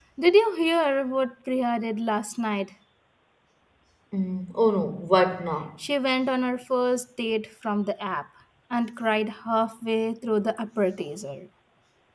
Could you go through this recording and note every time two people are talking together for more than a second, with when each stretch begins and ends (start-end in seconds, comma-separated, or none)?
none